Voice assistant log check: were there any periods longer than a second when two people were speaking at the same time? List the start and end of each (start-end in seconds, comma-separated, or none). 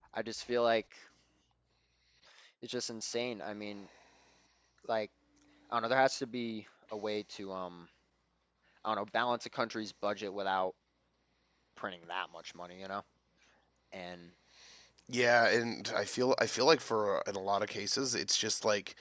none